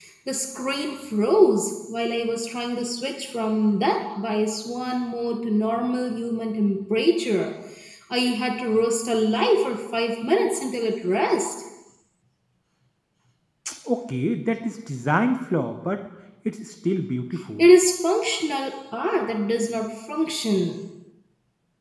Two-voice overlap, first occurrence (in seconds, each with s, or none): none